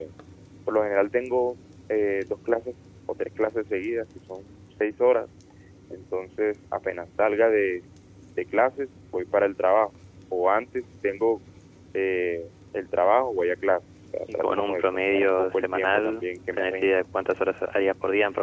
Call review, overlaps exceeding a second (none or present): present